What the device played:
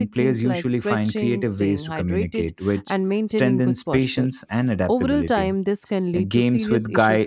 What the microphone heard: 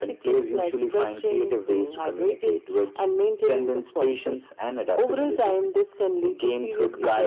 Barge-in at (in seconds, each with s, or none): none